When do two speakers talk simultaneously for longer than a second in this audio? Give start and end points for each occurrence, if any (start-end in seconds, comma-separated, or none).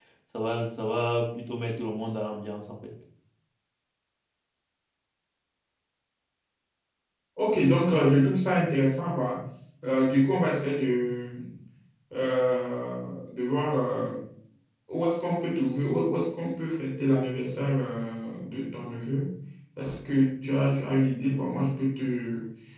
none